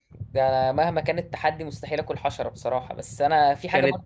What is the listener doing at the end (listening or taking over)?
listening